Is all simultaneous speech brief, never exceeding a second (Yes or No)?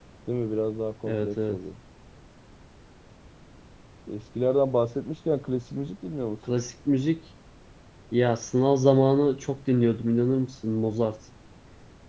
Yes